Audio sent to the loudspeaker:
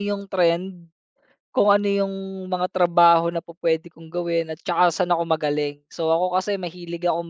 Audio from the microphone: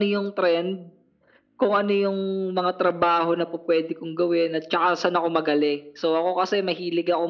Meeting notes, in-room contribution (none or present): none